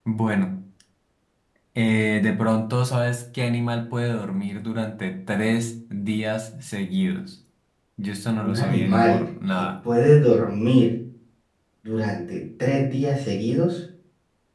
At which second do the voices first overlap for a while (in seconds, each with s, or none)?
8.4 s